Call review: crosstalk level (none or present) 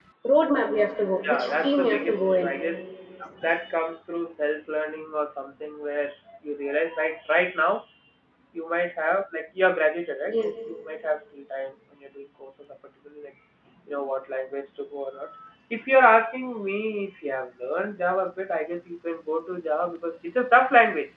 present